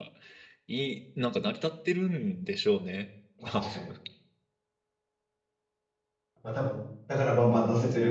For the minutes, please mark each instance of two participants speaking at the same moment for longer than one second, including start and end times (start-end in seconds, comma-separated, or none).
none